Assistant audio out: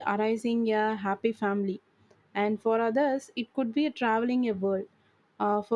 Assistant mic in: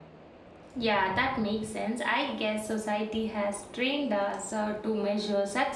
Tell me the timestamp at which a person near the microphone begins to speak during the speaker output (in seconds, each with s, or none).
0.8 s